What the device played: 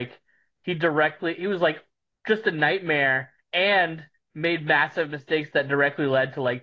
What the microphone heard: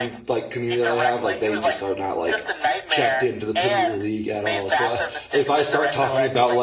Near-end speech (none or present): present